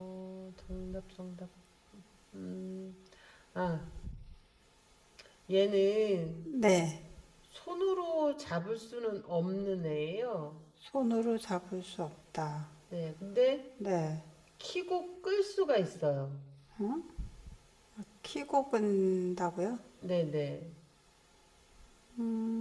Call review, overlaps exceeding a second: none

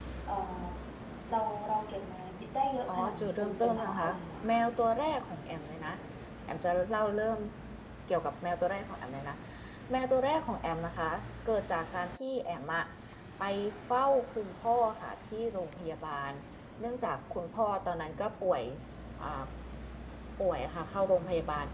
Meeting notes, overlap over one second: present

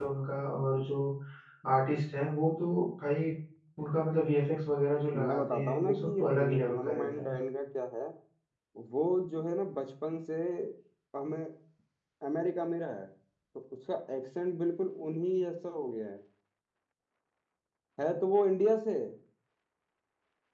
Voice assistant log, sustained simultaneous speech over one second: present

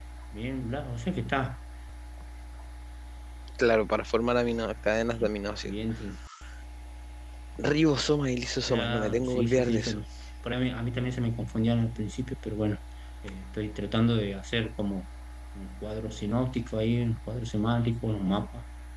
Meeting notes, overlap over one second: present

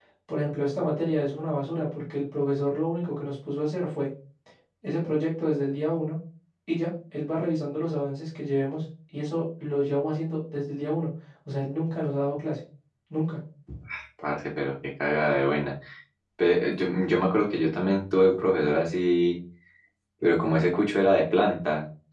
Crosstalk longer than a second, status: none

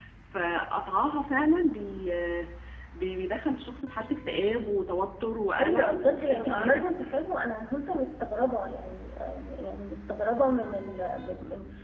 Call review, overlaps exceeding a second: present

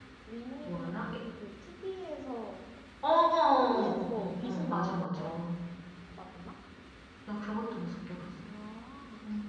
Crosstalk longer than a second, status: present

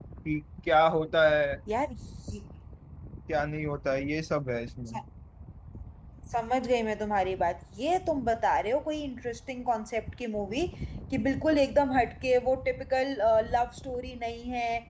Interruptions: none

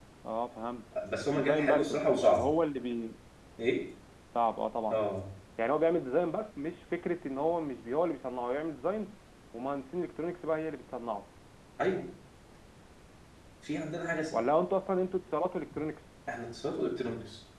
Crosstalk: present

